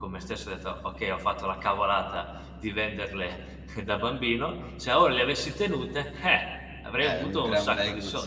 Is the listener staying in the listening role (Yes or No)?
No